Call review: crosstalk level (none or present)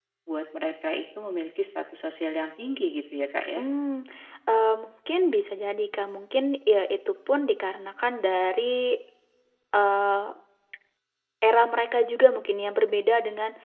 none